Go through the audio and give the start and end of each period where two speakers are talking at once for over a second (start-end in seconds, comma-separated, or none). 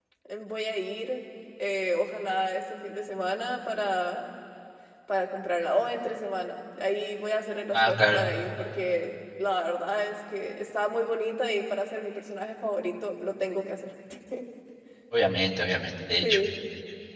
none